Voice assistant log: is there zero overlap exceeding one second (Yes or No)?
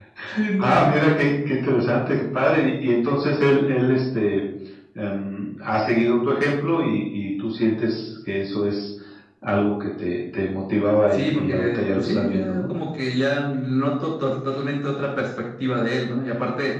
No